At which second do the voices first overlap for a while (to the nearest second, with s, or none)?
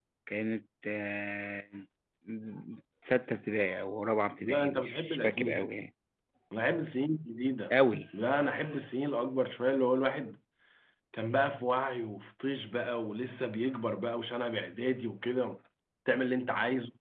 4 s